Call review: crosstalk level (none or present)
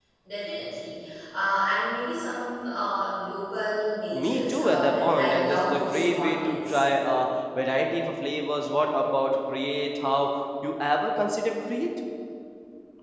present